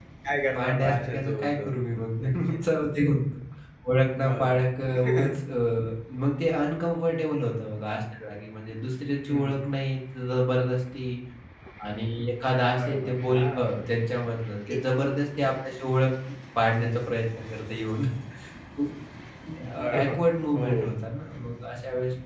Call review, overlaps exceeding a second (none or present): present